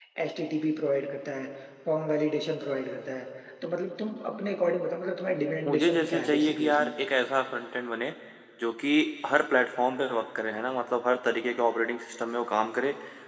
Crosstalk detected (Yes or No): Yes